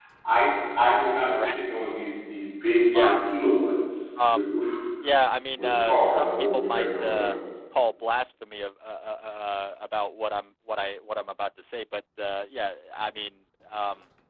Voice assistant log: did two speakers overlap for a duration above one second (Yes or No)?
Yes